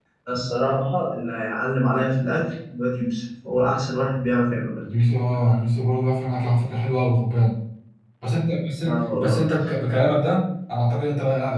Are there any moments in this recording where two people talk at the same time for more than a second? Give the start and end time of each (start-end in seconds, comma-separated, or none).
none